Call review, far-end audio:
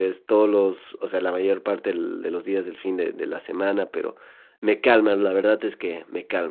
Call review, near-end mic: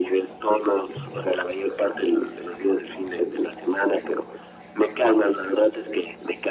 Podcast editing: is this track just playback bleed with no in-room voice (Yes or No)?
Yes